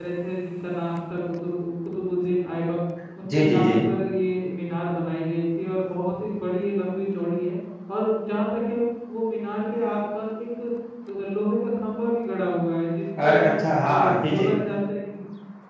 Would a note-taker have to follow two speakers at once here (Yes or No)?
Yes